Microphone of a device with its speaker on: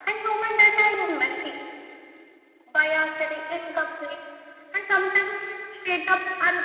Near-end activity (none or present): none